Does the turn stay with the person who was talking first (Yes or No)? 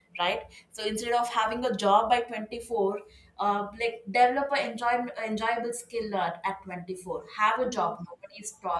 Yes